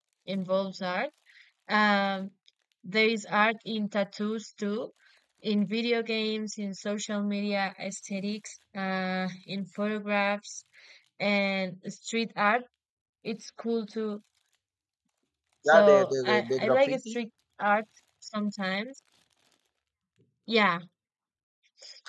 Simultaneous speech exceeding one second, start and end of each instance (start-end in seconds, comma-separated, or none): 15.7-17.2